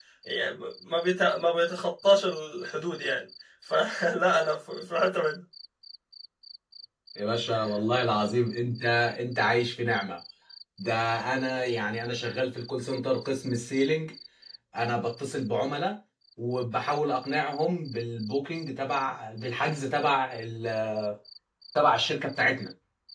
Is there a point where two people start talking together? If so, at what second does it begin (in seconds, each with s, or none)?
none